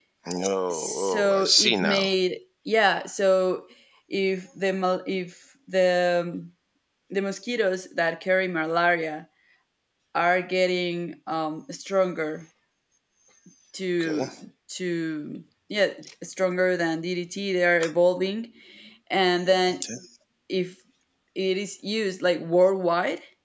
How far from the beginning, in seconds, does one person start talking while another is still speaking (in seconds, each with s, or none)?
0.7 s